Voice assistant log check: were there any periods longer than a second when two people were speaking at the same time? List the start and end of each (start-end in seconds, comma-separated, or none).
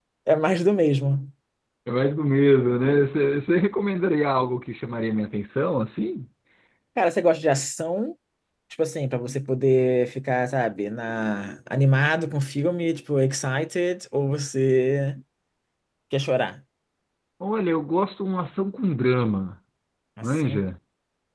none